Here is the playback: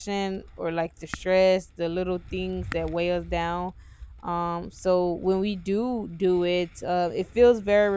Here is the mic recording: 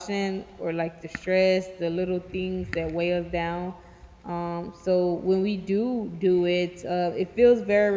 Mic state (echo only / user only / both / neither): echo only